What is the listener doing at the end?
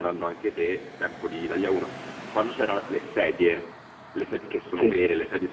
listening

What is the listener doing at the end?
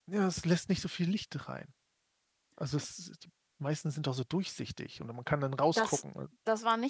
taking over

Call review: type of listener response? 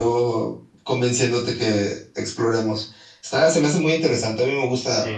taking over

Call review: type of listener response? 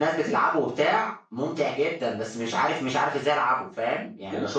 taking over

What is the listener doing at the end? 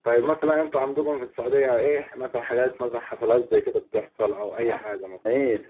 taking over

